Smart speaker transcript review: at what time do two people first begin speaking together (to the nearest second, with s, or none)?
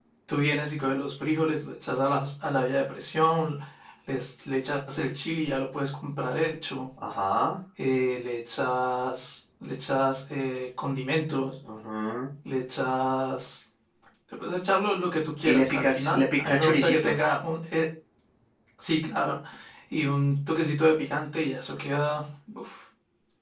15 s